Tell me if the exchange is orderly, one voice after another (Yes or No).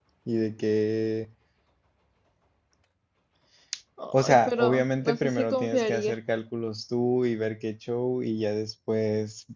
No